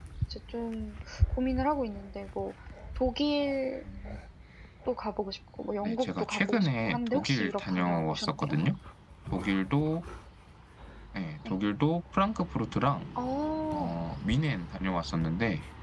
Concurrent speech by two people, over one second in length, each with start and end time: 5.8-8.5

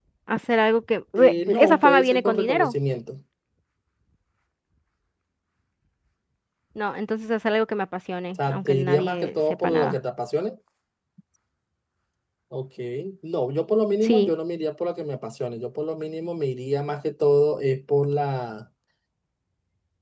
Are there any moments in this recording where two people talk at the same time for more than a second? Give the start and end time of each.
1.2-2.7, 8.5-10.0

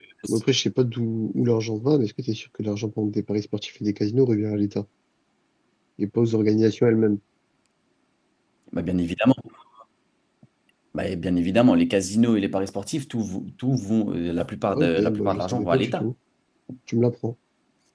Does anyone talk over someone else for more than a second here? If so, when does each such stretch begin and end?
14.7-16.1

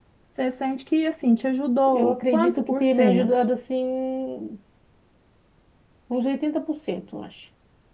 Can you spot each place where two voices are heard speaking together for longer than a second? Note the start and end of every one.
1.9-3.3

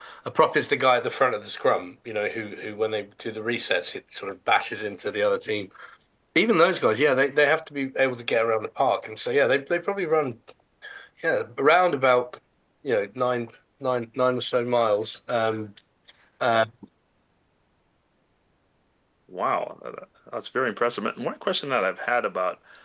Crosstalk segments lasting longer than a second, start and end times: none

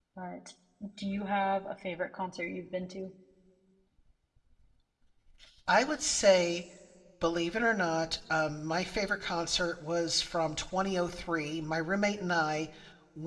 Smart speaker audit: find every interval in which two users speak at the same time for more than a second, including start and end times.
none

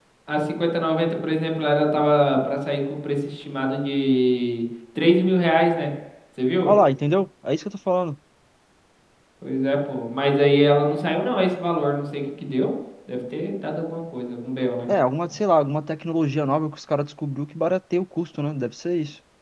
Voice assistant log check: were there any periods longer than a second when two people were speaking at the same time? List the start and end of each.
none

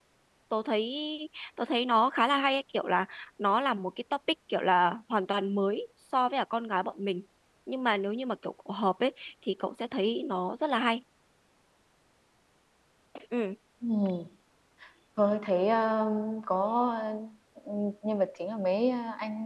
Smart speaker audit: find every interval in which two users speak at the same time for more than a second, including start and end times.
none

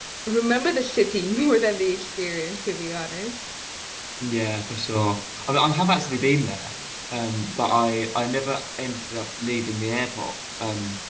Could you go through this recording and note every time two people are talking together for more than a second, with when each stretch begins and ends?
none

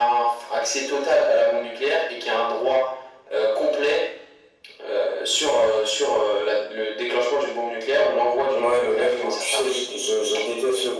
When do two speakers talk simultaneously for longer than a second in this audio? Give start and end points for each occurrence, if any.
8.5-9.9

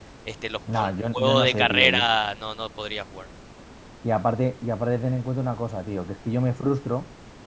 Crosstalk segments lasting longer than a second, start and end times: 0.7-2.1

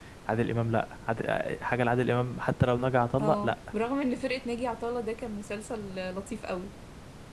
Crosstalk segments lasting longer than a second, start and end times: none

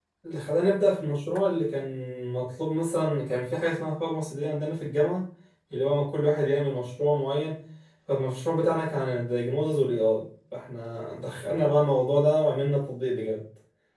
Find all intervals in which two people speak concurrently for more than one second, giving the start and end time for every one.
none

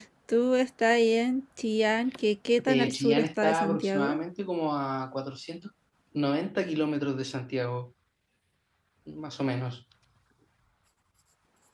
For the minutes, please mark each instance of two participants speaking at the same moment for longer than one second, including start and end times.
2.7-4.2

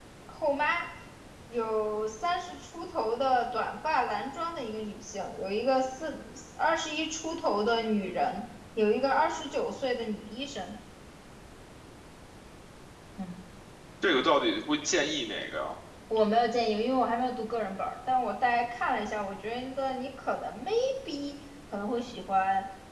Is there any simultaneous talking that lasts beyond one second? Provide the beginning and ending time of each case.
none

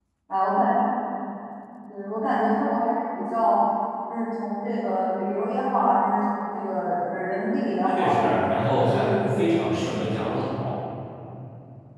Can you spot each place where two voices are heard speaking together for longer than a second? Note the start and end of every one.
7.9-10.0

